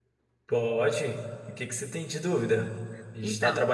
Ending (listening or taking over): listening